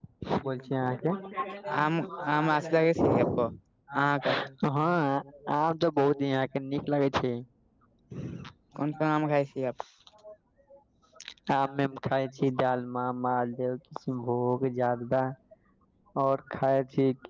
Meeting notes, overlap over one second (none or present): present